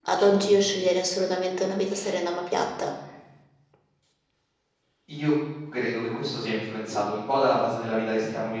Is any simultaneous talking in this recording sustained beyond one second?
No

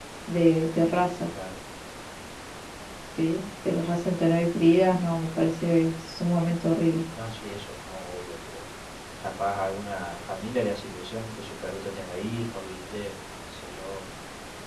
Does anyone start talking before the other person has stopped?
No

